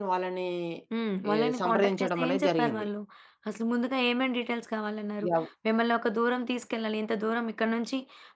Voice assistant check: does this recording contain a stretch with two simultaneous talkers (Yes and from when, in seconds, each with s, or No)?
Yes, from 1.3 s